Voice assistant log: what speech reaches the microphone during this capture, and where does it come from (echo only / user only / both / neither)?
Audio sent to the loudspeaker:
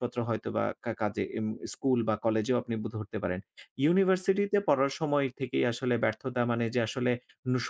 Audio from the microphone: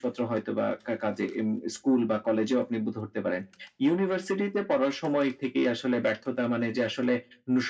echo only